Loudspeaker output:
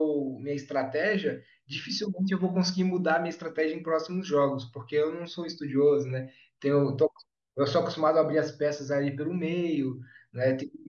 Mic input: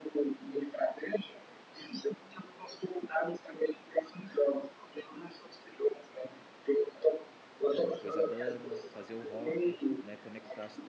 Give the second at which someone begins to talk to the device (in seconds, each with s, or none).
7.9 s